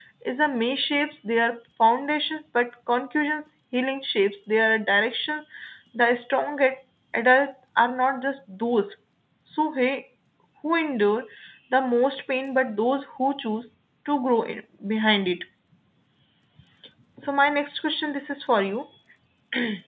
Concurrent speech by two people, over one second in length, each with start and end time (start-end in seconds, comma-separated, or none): none